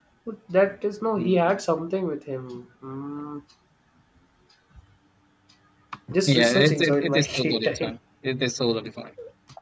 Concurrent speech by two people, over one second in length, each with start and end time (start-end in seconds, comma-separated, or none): 6.3-7.9